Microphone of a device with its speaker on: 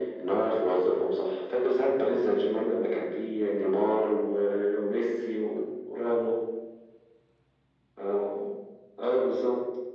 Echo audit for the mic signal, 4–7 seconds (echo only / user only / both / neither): echo only